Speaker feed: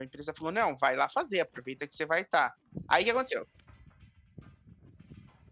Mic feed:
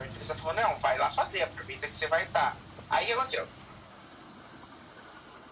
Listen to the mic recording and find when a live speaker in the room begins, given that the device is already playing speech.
none

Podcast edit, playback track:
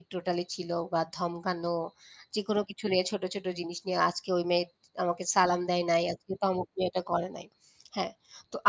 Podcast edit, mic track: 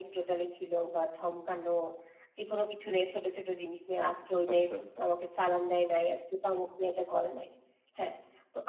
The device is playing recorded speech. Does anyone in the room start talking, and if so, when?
4.5 s

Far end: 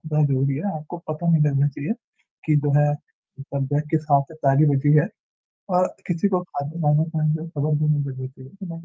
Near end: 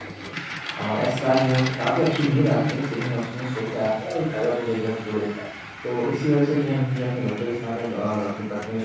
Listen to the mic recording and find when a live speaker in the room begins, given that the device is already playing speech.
0.8 s

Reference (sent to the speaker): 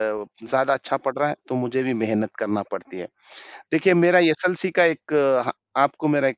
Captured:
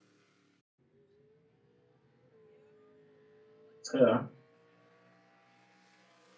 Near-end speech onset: 3.9 s

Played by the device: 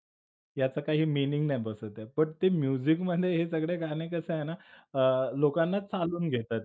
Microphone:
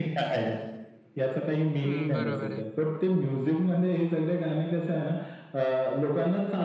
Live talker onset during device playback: 1.8 s

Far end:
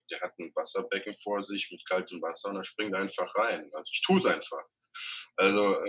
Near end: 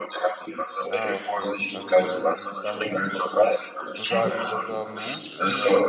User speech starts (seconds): 0.9 s

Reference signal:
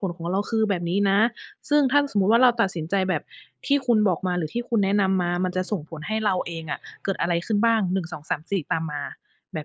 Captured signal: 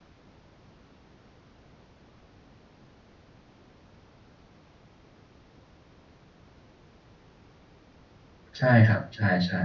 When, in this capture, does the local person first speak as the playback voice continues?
8.6 s

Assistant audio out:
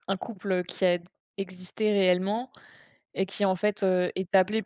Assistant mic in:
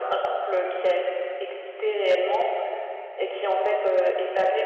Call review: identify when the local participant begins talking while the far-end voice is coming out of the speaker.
none

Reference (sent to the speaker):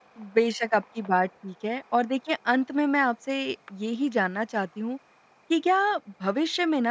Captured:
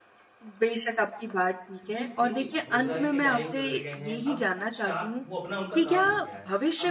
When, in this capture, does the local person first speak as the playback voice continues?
1.8 s

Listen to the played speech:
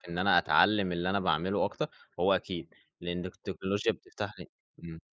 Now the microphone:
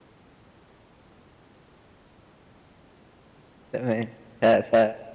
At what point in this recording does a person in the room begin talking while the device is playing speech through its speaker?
3.7 s

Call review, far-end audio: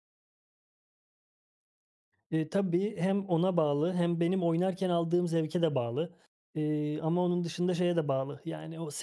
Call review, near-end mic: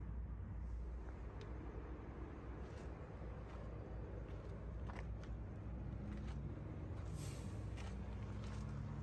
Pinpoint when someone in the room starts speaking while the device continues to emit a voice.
none

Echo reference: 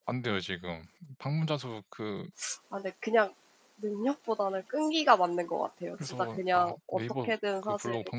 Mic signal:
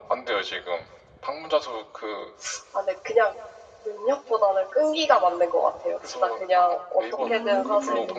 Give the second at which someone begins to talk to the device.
7.2 s

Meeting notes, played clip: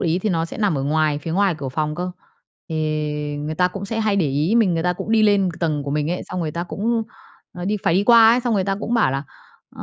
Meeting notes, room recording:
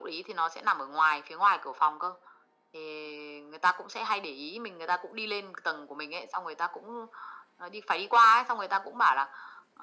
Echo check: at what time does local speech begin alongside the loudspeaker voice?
none

